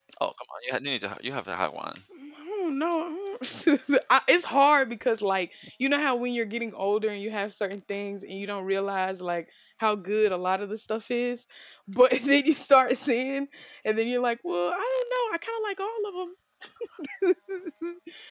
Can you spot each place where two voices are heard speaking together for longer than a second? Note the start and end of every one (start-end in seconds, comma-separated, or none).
none